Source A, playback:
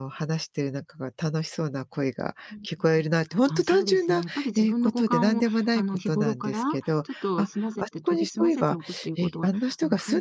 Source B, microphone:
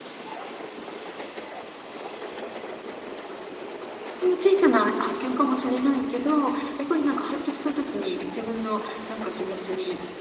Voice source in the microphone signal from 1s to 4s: neither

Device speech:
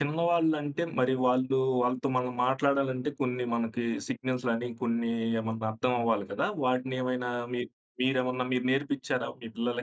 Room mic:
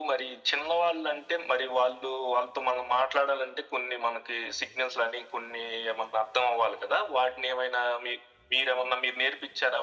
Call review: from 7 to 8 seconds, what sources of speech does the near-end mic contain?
echo only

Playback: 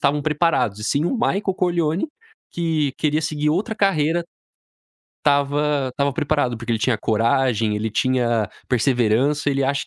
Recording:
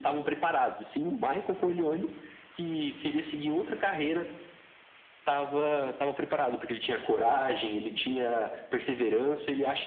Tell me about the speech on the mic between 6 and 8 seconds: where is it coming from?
echo only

